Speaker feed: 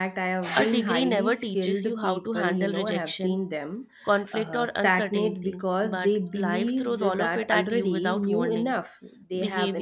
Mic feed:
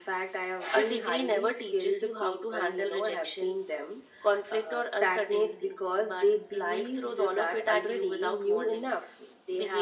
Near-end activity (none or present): none